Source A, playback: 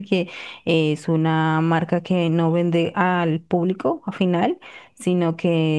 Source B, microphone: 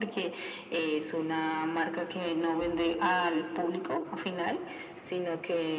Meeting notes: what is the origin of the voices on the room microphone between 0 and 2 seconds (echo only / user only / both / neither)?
echo only